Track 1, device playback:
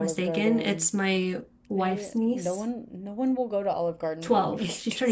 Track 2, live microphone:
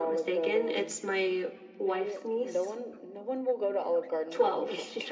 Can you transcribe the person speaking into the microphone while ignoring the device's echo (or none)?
none